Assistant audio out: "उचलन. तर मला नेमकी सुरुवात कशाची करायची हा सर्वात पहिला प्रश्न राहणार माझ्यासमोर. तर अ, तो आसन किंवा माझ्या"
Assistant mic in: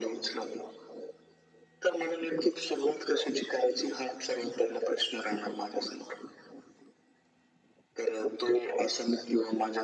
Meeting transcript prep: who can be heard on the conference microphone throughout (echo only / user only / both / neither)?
echo only